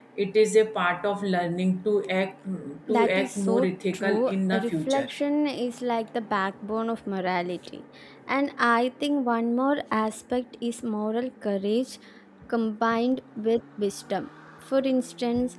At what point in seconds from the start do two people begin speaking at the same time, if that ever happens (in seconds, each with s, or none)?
2.9 s